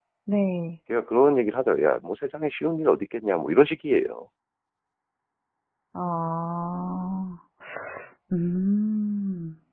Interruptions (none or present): none